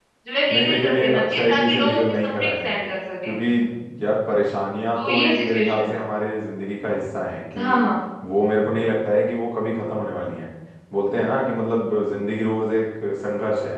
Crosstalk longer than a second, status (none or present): present